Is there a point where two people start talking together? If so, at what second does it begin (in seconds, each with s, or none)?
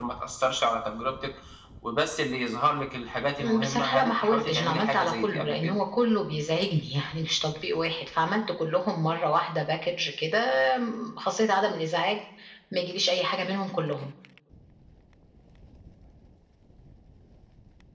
3.4 s